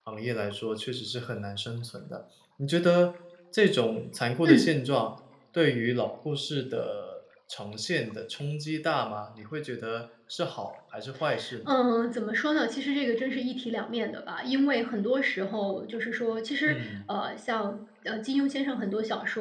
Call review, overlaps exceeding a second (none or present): none